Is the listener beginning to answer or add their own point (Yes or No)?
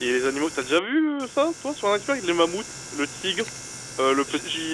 No